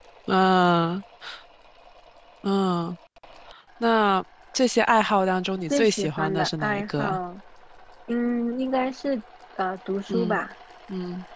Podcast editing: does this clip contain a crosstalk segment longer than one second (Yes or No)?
Yes